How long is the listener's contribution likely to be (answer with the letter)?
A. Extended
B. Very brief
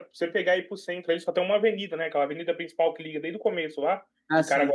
B